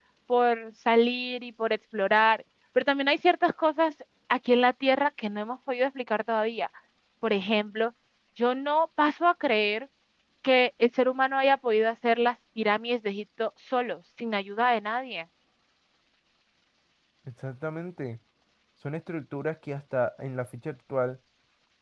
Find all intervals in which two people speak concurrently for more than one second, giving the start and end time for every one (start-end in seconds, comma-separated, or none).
none